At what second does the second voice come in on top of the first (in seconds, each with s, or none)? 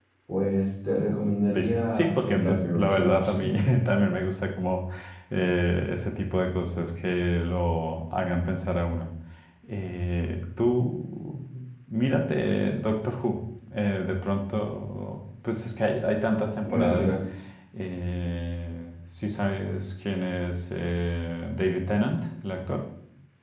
1.5 s